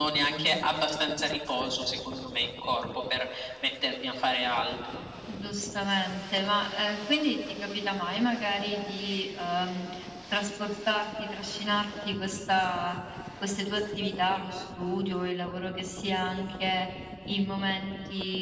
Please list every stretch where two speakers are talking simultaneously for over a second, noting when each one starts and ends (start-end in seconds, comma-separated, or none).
none